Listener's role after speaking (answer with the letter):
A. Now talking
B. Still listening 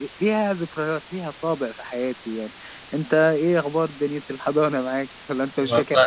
A